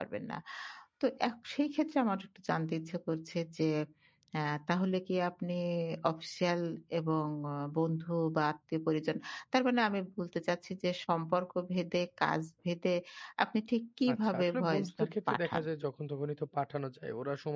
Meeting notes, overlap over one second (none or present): present